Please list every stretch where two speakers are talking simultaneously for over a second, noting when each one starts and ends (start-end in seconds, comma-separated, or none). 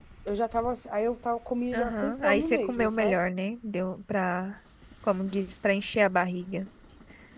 1.7-3.1